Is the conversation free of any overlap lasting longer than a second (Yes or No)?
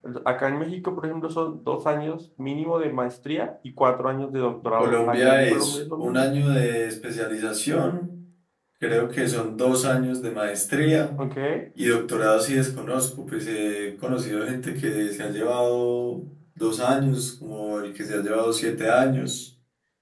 No